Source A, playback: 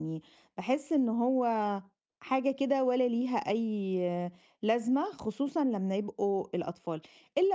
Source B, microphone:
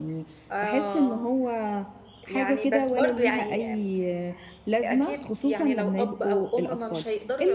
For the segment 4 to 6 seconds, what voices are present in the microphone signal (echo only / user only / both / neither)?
both